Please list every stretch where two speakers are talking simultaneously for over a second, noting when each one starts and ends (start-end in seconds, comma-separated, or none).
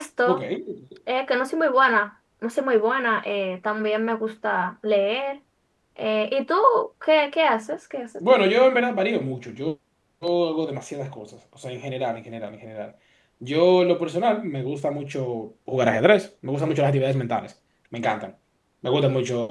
none